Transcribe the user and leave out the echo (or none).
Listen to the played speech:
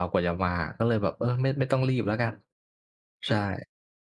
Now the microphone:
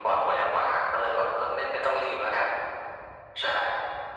none